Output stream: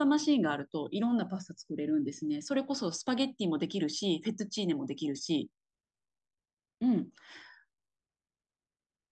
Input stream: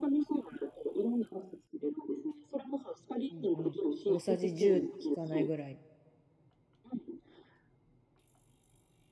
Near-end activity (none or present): present